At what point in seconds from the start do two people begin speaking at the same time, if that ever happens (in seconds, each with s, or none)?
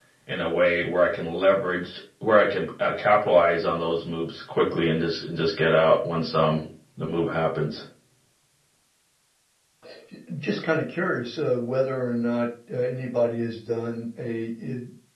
none